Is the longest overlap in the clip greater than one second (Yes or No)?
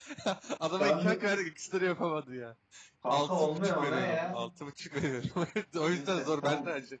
Yes